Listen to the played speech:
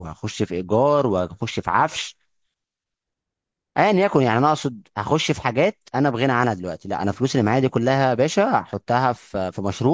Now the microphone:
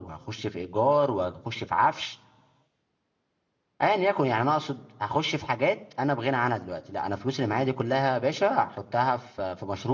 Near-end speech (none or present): none